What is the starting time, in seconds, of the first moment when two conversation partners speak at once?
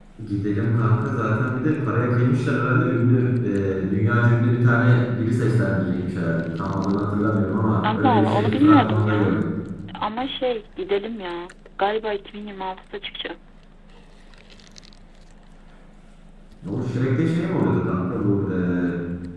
7.8 s

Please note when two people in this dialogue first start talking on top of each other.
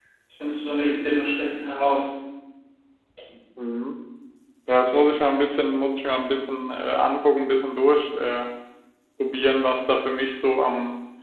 none

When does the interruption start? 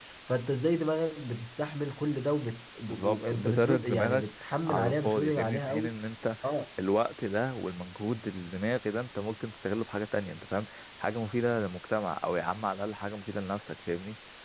2.9 s

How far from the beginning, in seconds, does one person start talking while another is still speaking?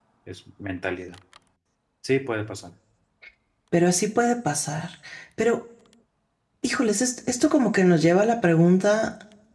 none

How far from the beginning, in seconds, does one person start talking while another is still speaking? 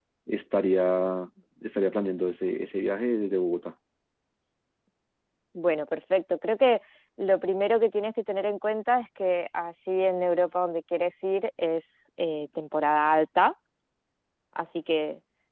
none

